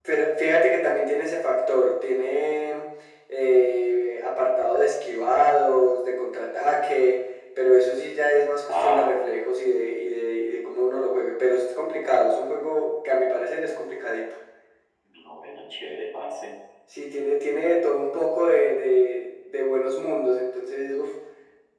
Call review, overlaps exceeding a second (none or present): none